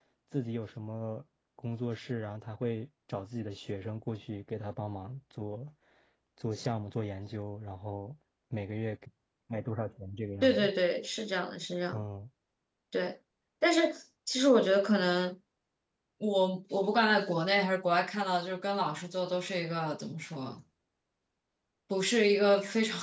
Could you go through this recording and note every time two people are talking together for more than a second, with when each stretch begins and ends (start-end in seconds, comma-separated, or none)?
none